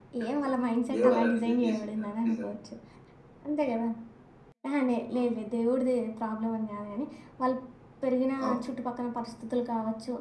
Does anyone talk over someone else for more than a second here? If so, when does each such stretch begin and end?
0.9-2.5

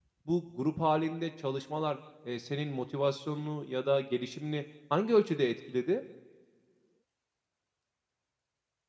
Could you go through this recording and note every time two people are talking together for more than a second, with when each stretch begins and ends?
none

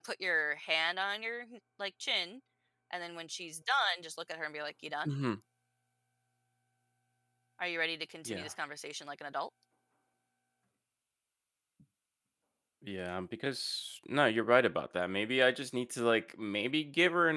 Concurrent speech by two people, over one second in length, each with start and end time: none

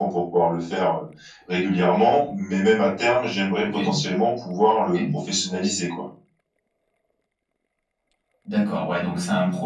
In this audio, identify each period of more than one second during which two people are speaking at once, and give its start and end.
none

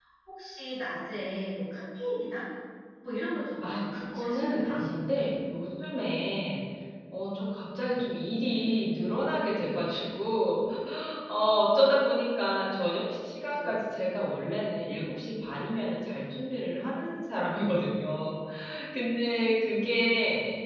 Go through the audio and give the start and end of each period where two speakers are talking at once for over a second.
3.6-5.2

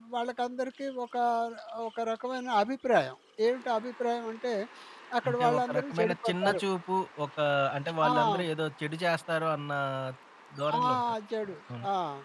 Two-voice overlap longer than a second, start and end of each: 5.3-6.6

